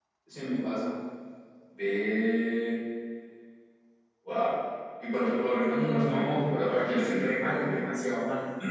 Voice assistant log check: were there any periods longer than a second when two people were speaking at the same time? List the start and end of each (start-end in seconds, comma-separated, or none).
5.7-7.8